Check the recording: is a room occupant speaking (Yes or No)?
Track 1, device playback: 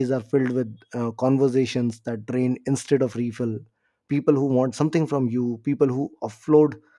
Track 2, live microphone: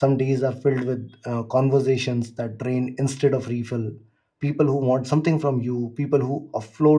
No